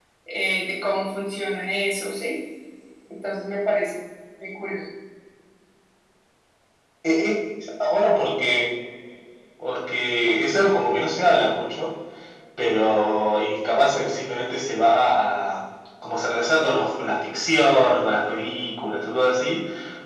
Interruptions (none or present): none